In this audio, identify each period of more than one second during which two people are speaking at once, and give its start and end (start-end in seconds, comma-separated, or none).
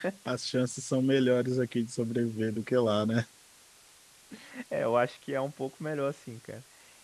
none